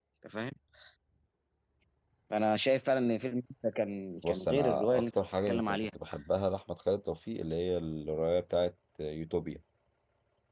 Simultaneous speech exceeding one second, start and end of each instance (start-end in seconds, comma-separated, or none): 4.2-5.9